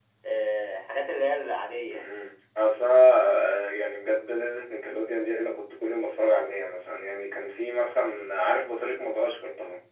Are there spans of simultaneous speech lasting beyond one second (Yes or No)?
No